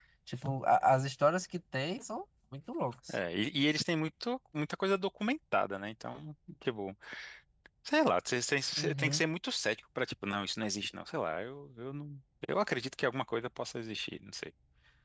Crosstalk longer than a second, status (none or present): none